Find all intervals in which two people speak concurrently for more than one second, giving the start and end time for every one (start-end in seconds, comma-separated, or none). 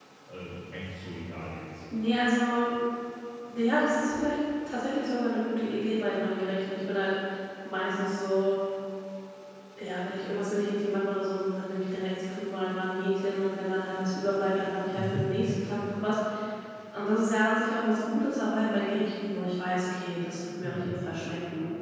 none